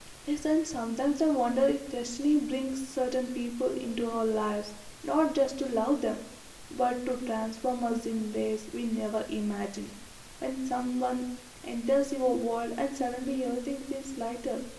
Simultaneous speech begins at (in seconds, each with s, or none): none